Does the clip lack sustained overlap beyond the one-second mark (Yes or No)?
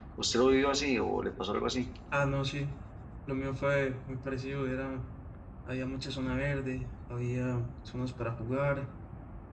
Yes